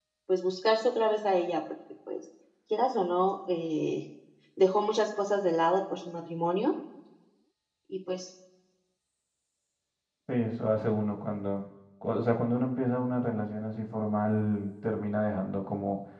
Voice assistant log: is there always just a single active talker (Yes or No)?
Yes